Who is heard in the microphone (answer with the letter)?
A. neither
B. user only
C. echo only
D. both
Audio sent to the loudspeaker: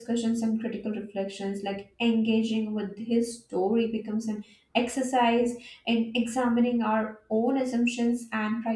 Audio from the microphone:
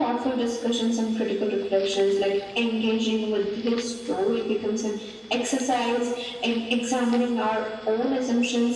C